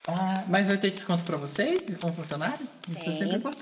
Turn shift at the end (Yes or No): Yes